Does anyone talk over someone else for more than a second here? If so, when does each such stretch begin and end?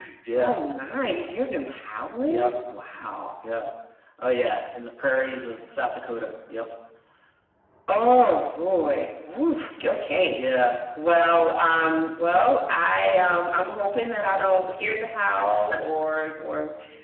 none

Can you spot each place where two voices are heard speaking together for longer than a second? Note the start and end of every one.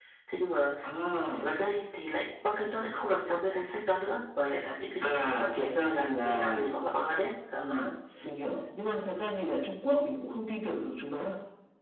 5.0-6.6

